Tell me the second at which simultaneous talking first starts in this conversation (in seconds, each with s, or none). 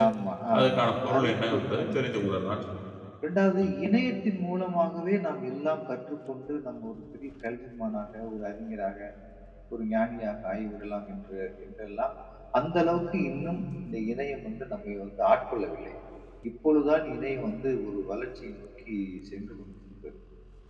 0.6 s